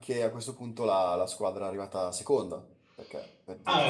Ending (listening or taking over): taking over